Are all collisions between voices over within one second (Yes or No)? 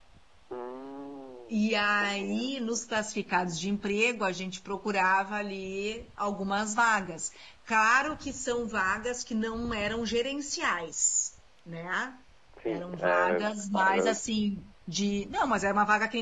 No